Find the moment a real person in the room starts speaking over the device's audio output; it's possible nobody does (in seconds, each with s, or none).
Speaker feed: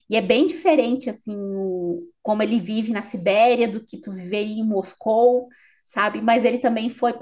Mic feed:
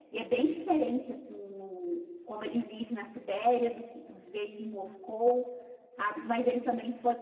none